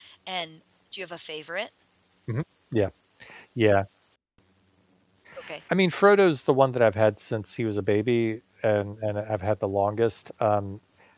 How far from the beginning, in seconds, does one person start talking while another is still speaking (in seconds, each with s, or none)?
none